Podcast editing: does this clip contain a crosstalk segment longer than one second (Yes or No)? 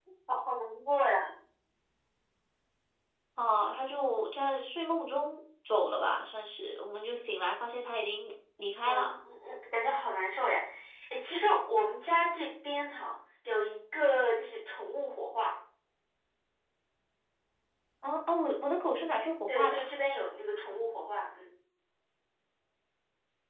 No